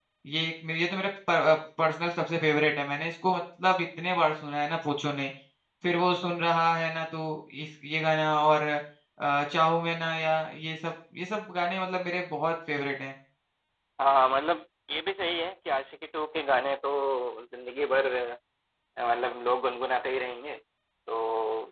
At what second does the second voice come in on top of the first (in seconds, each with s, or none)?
none